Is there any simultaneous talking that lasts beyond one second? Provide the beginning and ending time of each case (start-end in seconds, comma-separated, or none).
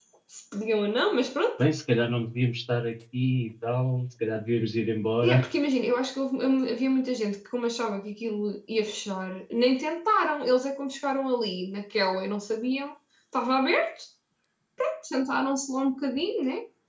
none